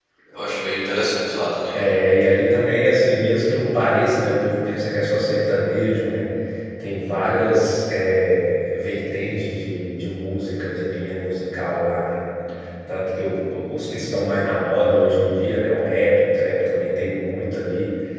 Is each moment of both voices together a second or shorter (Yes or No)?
Yes